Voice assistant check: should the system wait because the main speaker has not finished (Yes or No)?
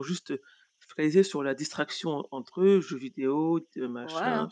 No